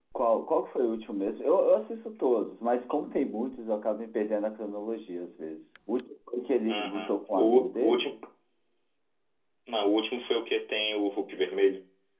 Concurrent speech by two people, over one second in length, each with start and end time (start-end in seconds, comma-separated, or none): 6.7-8.1